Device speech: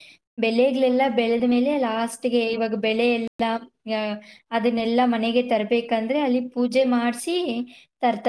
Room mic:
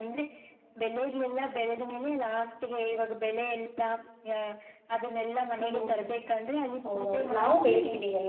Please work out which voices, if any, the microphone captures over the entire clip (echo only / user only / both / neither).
both